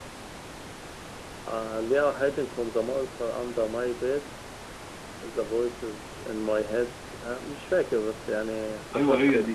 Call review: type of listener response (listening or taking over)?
taking over